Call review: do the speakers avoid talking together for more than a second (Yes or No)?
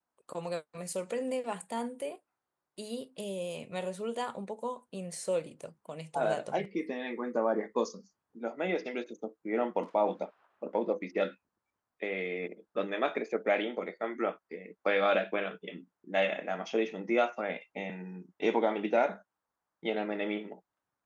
Yes